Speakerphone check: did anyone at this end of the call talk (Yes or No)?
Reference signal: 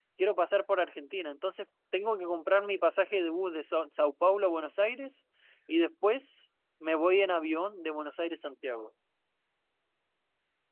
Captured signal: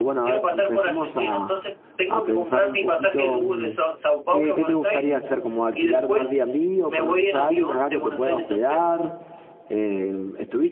Yes